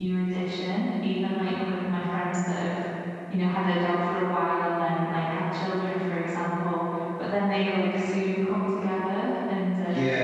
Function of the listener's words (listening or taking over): taking over